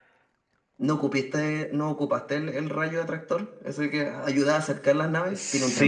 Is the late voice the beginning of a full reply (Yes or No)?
Yes